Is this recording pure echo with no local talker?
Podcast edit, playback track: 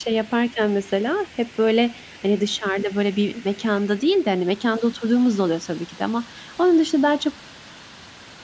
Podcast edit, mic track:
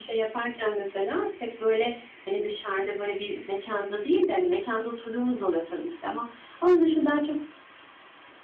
Yes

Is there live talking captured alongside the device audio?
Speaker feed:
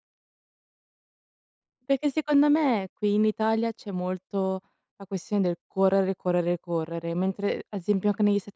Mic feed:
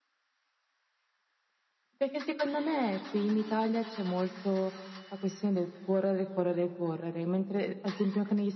No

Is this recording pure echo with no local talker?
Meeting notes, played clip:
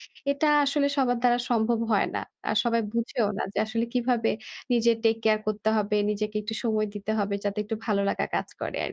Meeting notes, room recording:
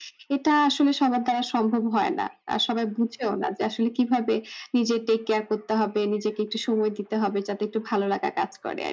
Yes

